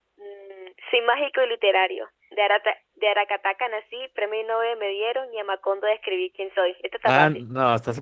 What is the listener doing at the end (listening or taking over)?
taking over